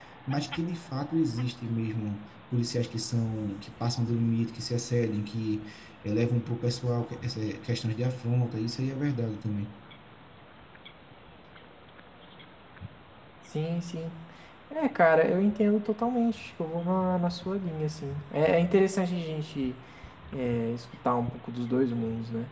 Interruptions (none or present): none